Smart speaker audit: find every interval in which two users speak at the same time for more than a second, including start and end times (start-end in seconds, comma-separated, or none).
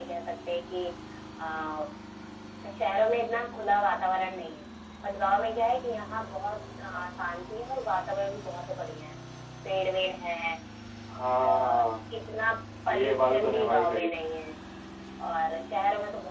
12.9-14.1